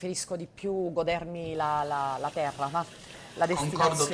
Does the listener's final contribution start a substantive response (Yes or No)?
Yes